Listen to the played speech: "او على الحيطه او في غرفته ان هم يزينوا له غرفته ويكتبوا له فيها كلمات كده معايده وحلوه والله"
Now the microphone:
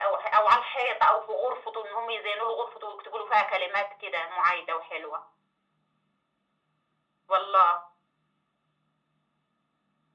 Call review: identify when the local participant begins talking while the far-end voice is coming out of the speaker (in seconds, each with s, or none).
none